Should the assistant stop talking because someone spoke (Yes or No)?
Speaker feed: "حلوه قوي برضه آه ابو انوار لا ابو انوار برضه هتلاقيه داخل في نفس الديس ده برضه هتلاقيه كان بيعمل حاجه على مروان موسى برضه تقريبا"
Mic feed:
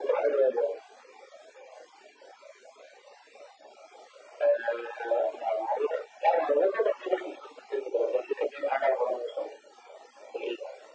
No